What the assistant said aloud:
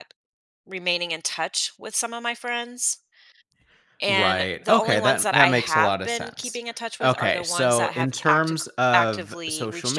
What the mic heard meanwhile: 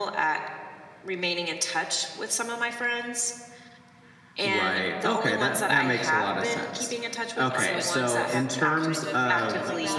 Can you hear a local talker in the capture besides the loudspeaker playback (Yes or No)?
Yes